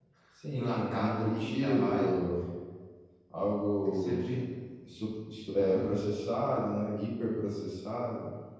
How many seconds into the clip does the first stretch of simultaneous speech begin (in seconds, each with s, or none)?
0.5 s